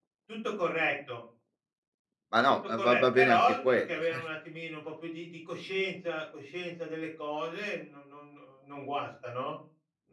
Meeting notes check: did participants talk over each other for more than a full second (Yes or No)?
Yes